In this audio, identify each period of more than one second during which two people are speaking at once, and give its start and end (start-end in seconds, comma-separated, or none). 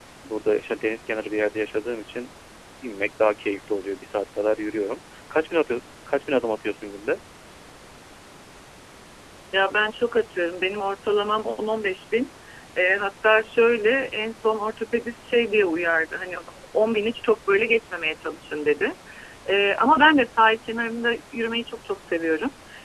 none